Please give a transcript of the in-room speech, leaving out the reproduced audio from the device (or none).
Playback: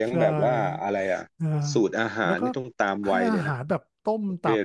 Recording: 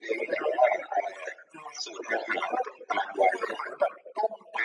none